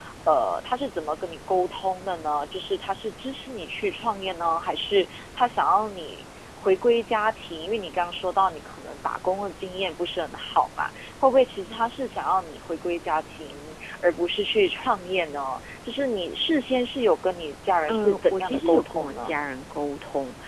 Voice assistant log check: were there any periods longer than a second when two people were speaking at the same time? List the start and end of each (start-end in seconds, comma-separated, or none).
17.9-19.4